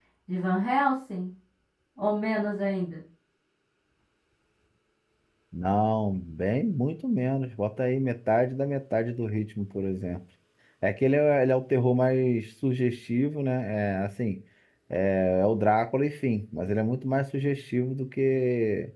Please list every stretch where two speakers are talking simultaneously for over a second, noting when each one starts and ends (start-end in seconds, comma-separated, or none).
none